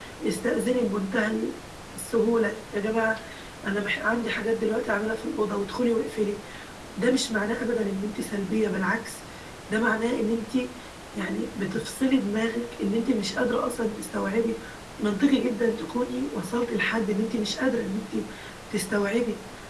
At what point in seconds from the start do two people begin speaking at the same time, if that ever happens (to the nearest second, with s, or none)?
none